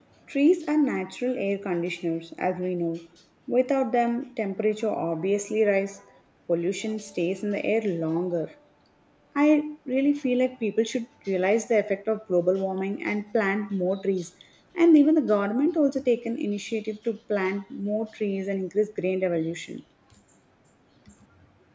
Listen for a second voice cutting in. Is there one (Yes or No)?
No